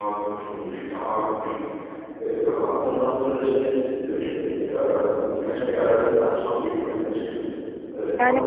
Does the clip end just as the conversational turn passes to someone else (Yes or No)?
Yes